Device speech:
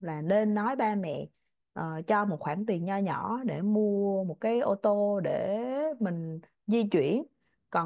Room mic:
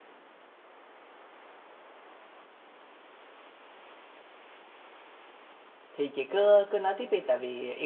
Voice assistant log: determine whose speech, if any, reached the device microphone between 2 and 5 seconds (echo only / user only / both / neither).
neither